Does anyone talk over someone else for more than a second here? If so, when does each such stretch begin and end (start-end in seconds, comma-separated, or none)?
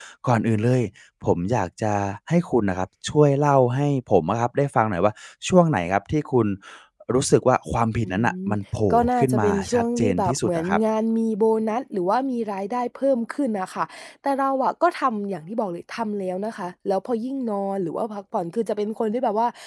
8.9-10.8